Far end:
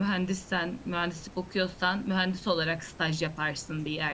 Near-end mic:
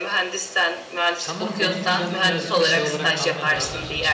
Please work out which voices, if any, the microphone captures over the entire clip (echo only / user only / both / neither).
both